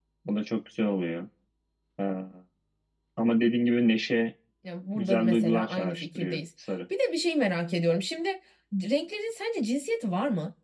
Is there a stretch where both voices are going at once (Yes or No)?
Yes